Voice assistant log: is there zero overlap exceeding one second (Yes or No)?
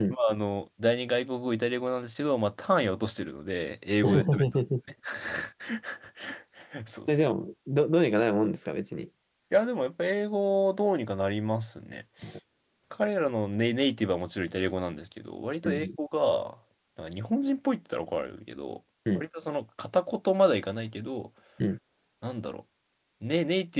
Yes